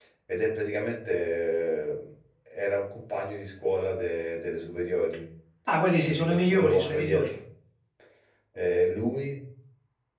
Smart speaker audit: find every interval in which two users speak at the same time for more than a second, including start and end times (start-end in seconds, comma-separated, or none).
6.1-7.3